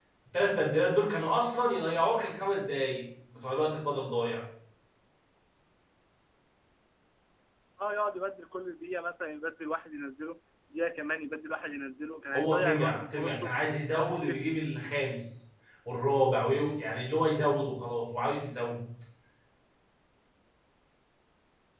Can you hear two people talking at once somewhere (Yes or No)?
Yes